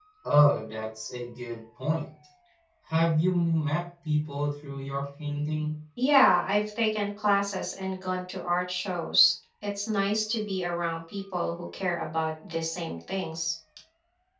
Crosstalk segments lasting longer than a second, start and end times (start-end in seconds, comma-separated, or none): none